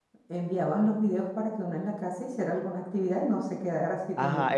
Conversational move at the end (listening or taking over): taking over